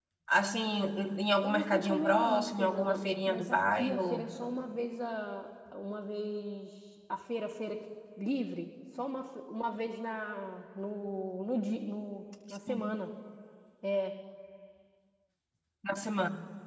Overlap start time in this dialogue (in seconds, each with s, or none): 1.4 s